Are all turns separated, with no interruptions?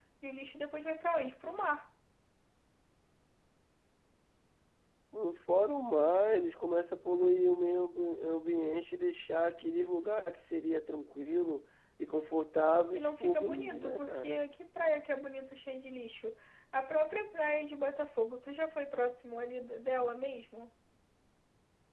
No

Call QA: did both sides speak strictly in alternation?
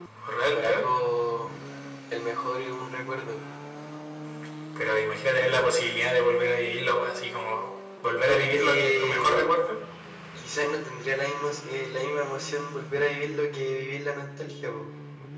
No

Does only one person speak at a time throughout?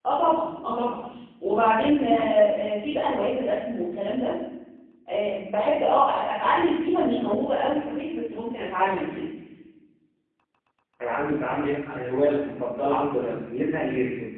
Yes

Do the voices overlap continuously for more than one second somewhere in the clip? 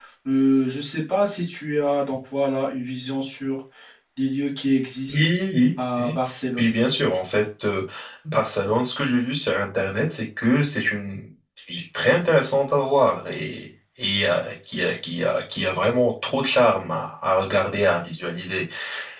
No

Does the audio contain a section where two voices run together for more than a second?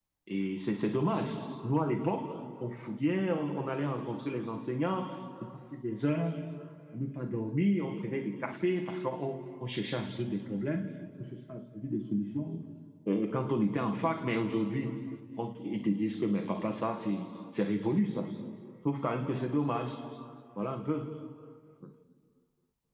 No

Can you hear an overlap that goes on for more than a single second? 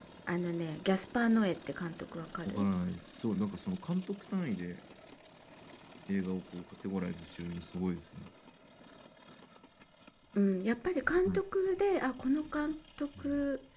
No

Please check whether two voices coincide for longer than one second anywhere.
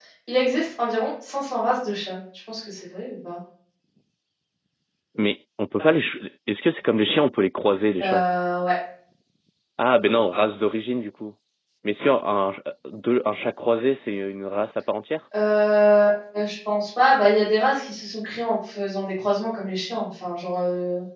No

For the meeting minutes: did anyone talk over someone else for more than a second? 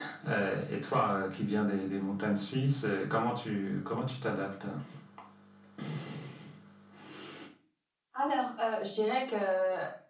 No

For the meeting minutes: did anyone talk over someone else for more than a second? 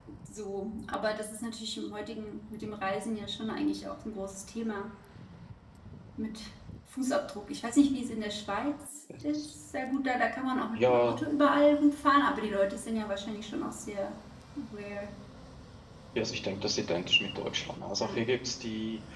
No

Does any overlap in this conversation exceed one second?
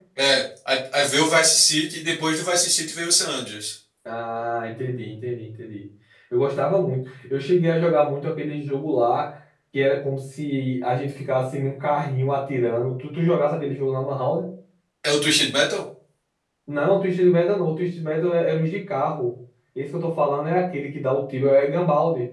No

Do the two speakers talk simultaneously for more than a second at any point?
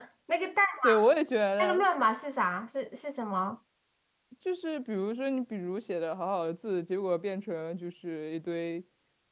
No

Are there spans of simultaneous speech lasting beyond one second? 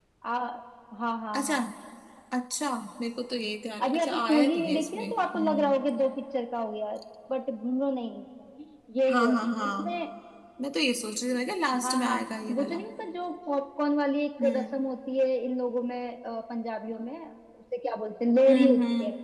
Yes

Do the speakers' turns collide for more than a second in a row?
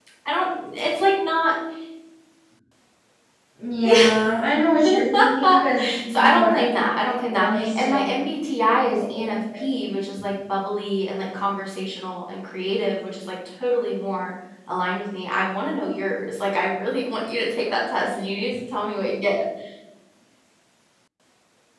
Yes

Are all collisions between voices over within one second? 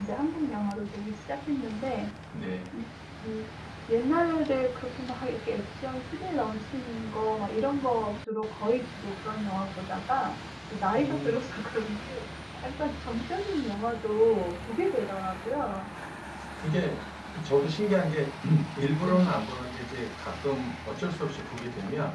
Yes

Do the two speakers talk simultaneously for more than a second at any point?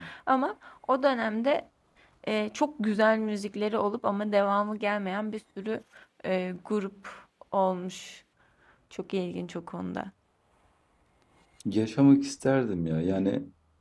No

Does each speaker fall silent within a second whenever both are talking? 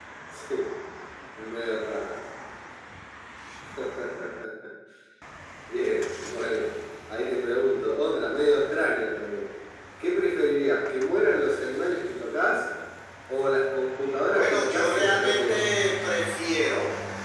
No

